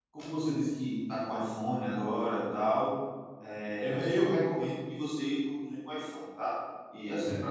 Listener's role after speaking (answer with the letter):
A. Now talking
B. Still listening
B